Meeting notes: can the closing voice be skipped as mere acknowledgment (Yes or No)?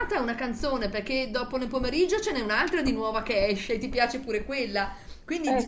Yes